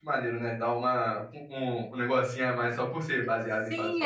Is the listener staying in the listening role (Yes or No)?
No